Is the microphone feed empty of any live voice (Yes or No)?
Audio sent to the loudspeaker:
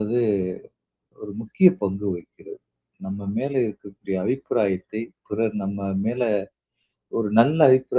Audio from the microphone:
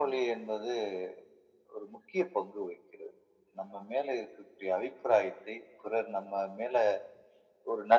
Yes